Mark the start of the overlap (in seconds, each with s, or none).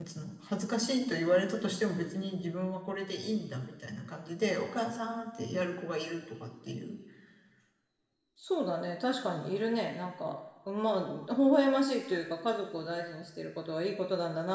none